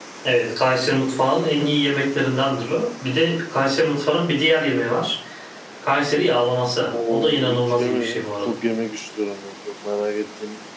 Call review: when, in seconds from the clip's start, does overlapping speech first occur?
6.9 s

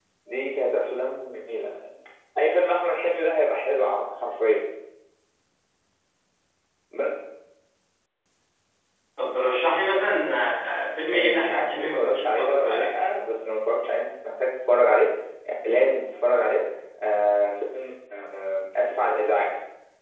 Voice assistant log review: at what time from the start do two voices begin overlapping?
11.1 s

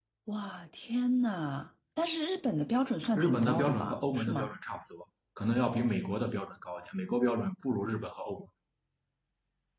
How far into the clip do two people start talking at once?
3.2 s

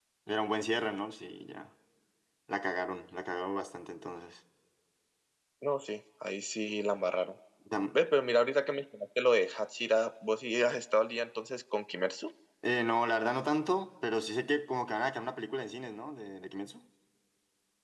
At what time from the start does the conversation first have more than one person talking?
none

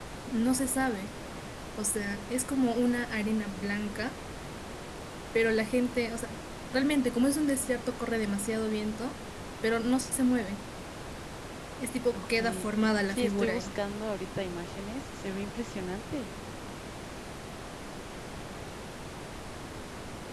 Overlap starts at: 12.1 s

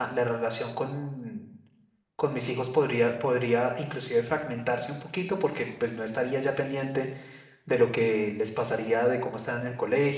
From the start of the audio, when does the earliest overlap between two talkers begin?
none

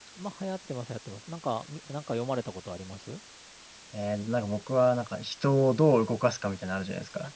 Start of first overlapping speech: none

